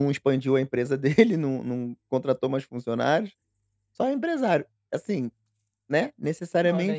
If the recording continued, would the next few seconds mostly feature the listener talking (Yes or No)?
Yes